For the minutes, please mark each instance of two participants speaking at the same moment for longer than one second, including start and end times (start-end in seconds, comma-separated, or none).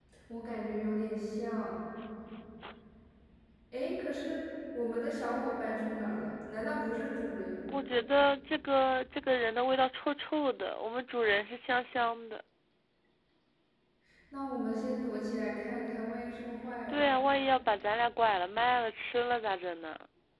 none